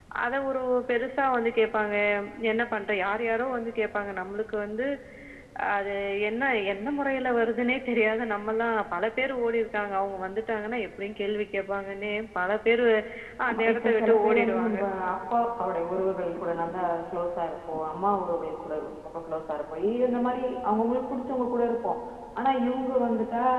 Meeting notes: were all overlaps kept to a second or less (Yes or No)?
No